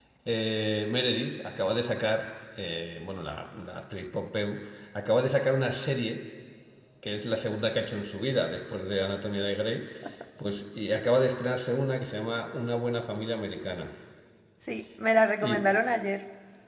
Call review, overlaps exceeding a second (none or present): none